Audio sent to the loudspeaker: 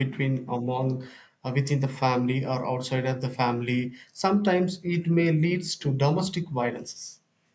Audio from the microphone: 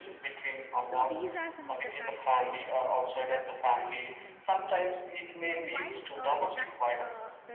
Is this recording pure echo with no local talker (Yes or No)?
No